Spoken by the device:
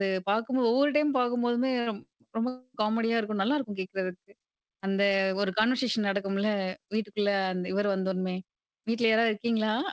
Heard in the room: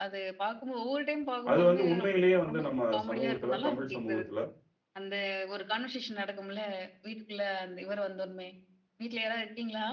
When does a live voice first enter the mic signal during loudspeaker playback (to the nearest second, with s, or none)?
2 s